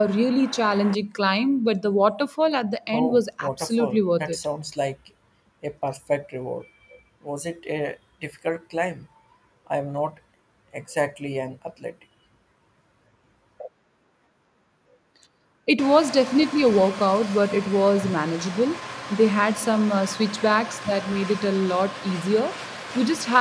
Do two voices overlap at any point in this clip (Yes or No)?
Yes